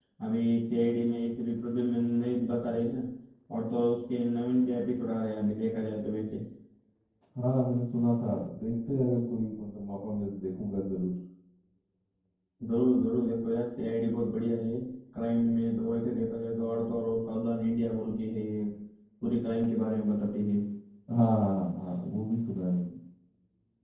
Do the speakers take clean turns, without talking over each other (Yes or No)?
Yes